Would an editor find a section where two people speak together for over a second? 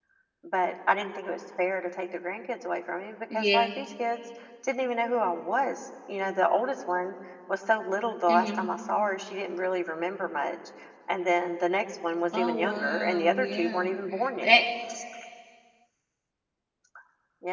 Yes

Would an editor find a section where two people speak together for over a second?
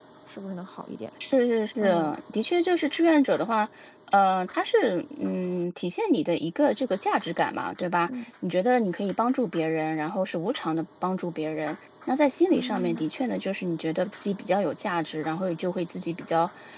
No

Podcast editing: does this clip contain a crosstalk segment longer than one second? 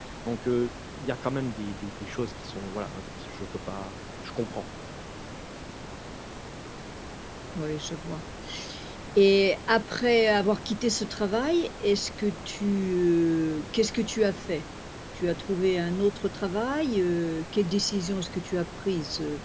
No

